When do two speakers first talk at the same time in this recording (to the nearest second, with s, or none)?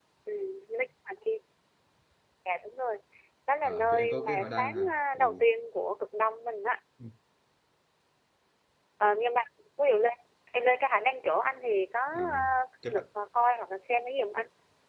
4 s